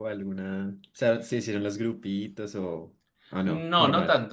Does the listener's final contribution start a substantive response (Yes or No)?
Yes